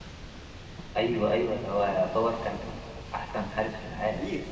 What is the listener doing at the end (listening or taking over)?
taking over